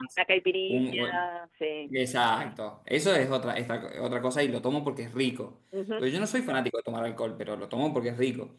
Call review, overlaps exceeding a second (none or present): none